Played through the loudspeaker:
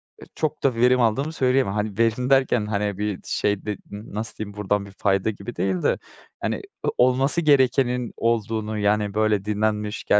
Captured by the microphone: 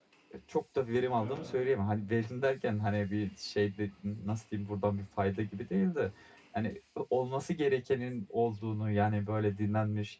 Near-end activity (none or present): present